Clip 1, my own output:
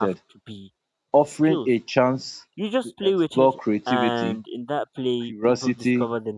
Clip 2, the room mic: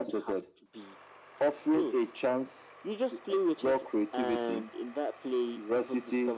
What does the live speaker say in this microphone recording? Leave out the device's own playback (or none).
none